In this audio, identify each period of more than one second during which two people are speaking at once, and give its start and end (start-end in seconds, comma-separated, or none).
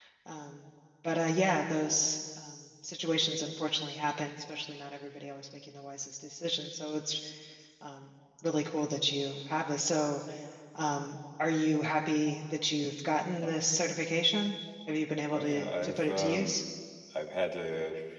15.3-16.6